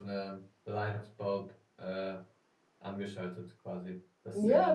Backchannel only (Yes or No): No